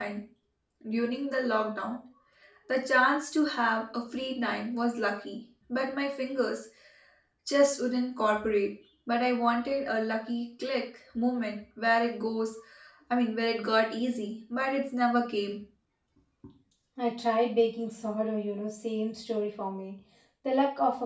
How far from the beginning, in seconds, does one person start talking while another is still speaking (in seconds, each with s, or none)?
none